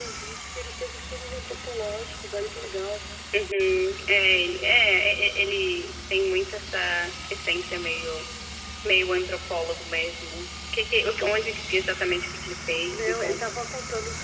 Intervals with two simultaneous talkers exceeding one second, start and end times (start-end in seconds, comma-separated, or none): none